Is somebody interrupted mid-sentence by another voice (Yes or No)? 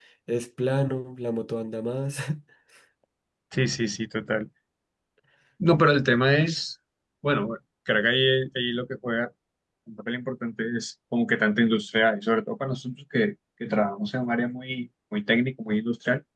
No